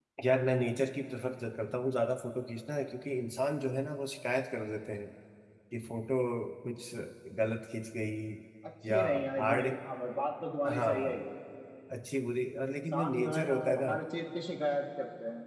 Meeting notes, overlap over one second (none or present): present